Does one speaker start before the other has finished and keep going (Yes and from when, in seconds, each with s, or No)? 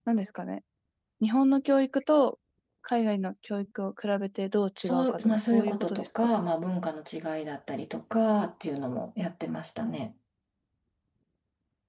Yes, from 4.8 s